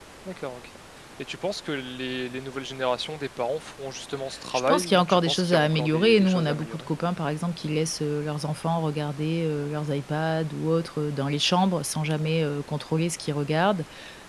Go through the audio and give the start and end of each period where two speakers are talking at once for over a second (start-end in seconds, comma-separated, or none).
4.7-6.9